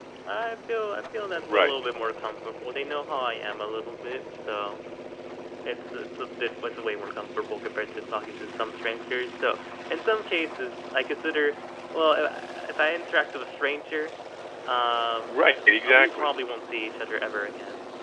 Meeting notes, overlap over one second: none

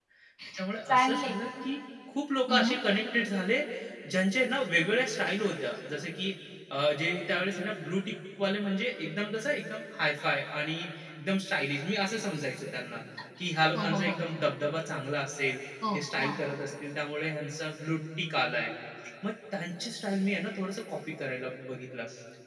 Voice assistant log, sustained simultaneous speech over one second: none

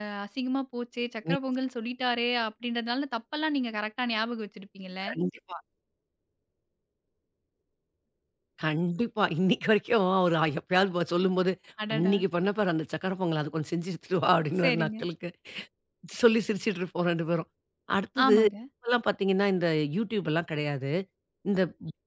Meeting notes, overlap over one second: none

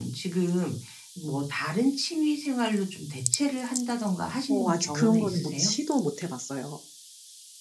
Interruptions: present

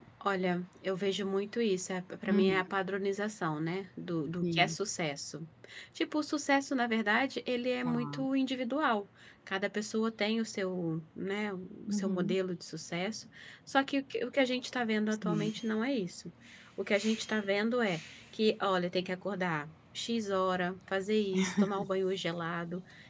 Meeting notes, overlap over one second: none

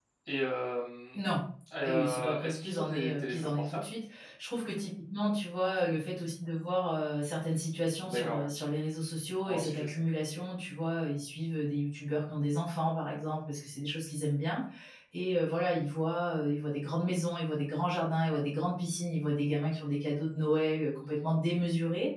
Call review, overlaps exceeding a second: present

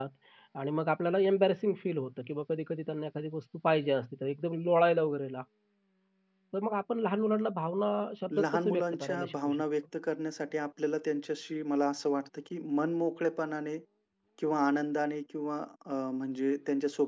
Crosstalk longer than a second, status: present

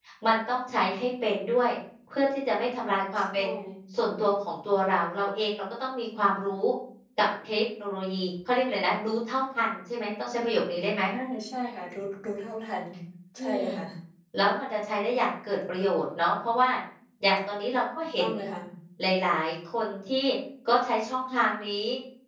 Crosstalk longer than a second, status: none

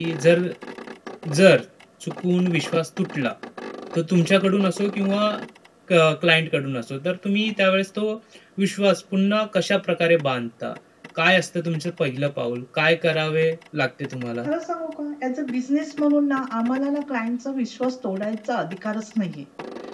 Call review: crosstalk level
none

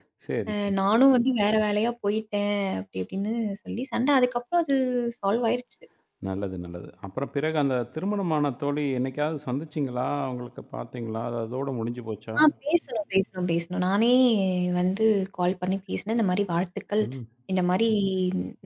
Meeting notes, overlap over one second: none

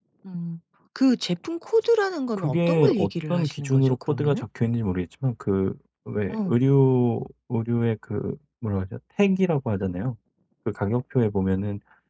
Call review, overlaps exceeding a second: present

